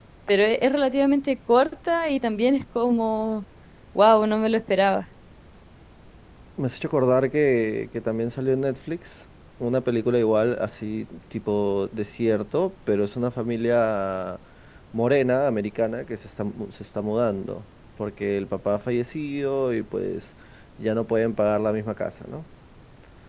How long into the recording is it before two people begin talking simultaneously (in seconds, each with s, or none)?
none